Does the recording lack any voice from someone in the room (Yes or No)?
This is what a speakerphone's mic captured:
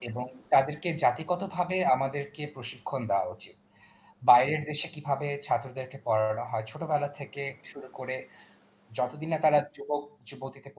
No